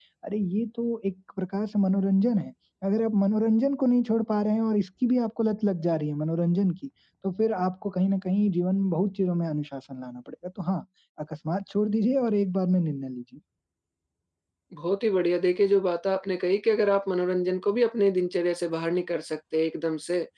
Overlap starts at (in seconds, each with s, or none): none